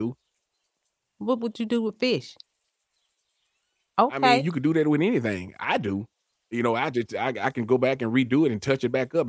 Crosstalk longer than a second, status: none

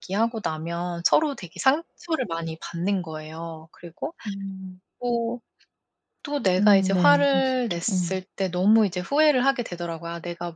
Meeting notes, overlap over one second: present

